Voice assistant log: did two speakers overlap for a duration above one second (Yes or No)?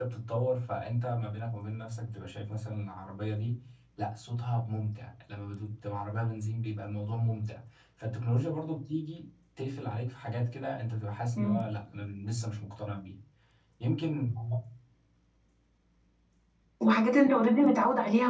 No